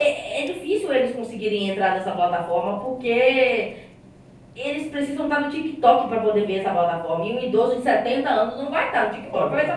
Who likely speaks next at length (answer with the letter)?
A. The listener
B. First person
A